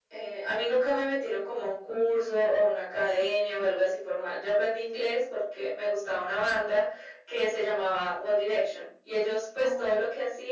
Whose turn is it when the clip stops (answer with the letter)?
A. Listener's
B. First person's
B